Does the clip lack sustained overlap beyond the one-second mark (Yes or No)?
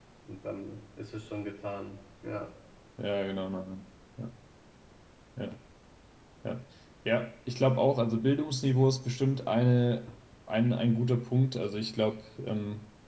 Yes